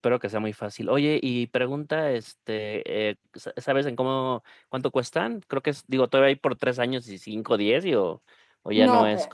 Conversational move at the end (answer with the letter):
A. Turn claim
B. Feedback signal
A